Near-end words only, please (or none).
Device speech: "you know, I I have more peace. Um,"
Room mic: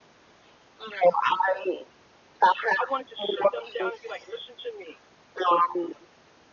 I wanted to sit them down and be like, listen to me,